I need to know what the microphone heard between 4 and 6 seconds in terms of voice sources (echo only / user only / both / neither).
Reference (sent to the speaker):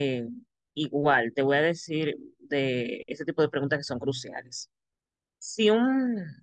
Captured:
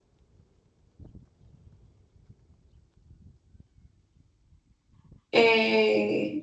user only